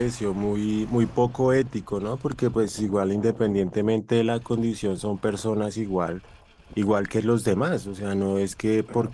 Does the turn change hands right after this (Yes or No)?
No